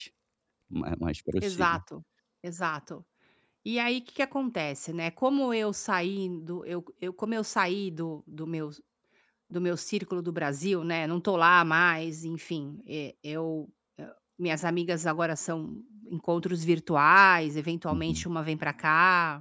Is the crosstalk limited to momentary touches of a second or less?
Yes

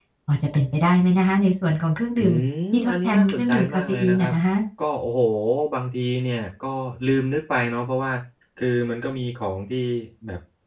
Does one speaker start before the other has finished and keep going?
Yes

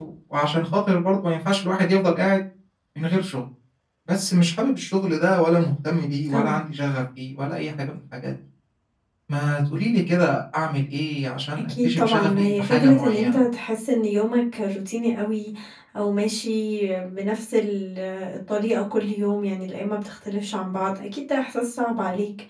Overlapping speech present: Yes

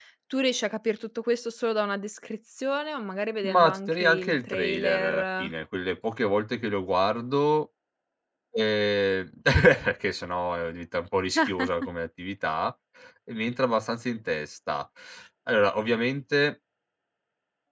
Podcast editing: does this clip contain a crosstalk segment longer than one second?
Yes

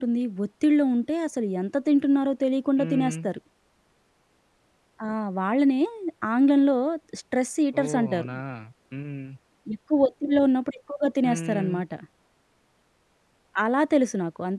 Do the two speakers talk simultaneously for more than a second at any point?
No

